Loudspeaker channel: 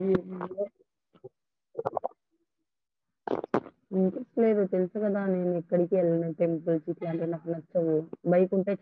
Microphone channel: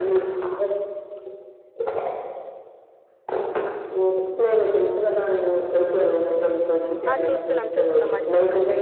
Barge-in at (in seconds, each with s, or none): 7.1 s